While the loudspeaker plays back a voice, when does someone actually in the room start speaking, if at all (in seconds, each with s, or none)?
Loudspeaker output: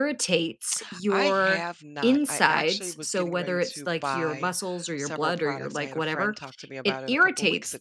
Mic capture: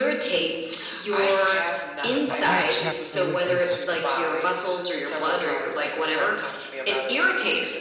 2.1 s